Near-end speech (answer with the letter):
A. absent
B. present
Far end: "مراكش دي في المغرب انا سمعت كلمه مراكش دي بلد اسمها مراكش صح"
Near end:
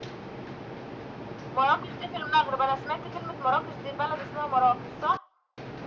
A